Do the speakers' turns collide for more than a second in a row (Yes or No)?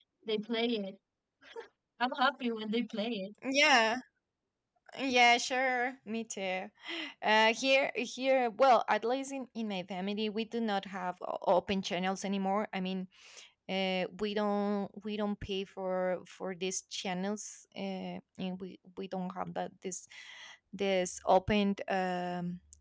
No